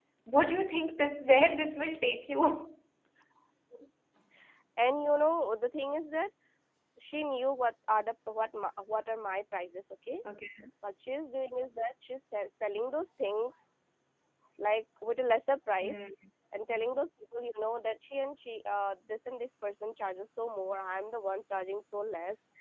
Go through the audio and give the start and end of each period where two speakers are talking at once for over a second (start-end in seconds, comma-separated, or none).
none